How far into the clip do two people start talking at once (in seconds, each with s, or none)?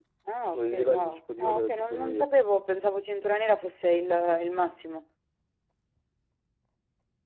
0.5 s